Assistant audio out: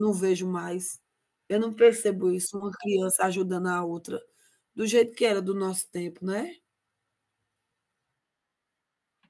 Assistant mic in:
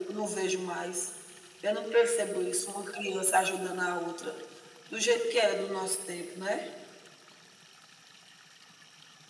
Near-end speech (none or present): none